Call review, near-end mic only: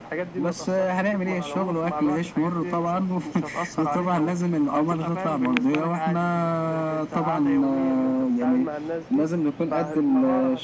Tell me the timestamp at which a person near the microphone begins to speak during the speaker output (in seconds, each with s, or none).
none